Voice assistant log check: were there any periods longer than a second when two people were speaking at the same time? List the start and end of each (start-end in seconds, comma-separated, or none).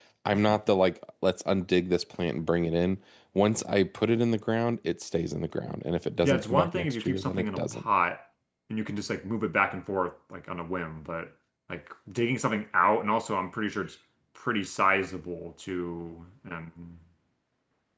6.2-7.9